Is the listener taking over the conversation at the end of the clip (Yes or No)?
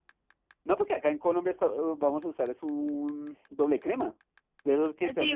Yes